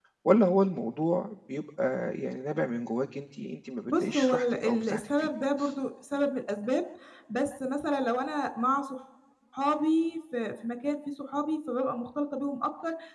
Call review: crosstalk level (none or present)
present